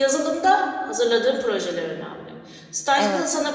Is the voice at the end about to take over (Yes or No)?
No